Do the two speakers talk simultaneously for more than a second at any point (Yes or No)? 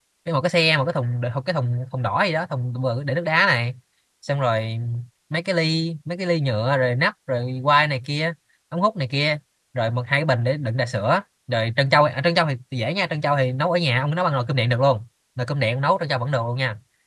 No